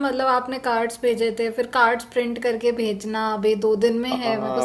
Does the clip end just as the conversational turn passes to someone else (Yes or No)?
Yes